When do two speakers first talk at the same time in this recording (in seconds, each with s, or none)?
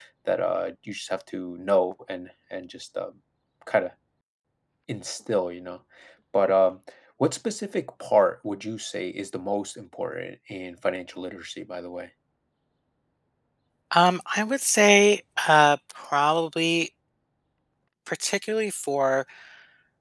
none